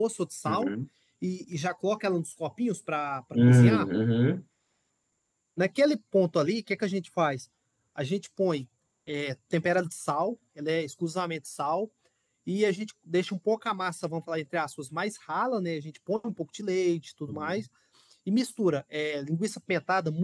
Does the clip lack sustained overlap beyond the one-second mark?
Yes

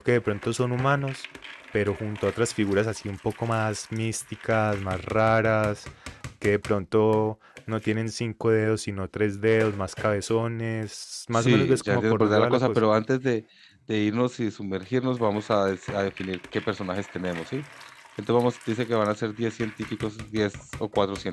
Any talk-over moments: Yes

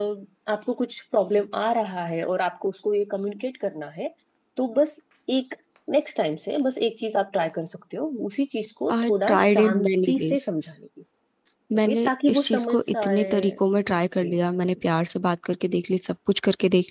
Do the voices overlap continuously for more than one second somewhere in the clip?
Yes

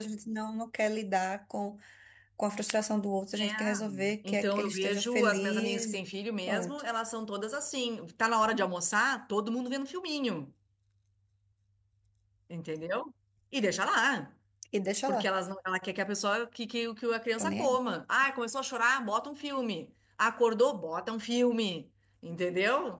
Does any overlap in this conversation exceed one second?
Yes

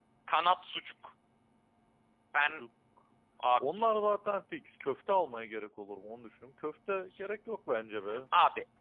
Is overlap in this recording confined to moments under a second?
Yes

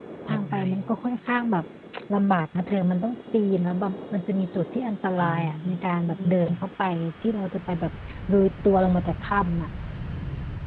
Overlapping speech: Yes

